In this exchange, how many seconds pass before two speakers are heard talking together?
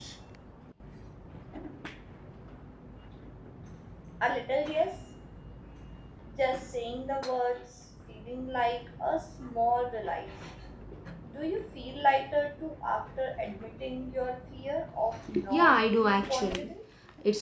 15.2 s

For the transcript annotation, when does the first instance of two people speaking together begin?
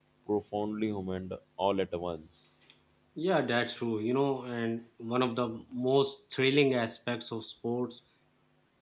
none

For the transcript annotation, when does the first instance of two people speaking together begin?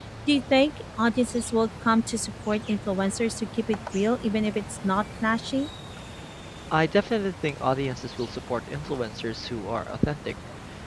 none

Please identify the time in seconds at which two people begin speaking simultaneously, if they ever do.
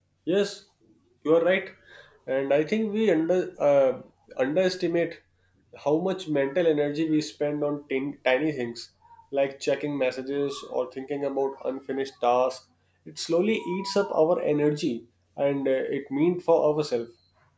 none

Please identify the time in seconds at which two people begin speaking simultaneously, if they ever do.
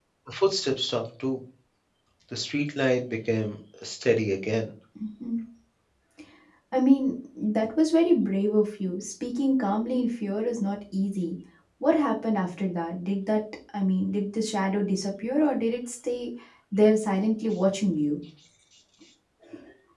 none

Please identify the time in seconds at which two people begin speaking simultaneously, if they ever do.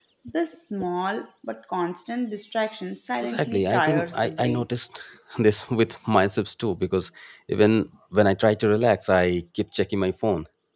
3.1 s

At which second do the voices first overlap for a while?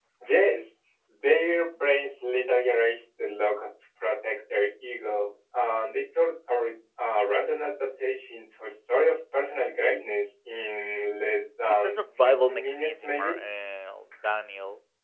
11.7 s

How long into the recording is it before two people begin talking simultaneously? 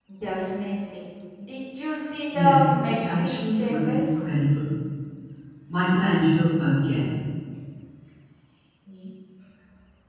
2.3 s

